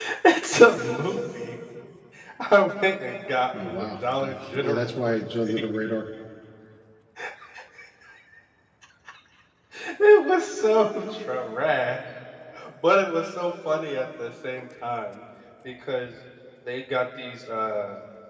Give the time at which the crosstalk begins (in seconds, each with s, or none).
3.5 s